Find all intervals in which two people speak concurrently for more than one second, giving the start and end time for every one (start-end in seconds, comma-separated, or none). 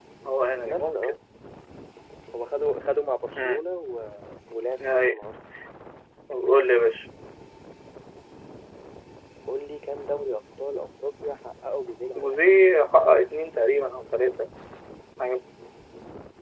none